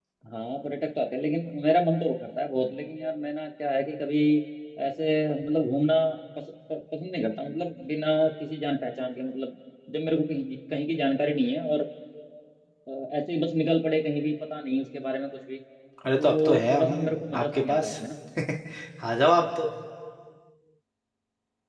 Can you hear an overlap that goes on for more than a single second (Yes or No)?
Yes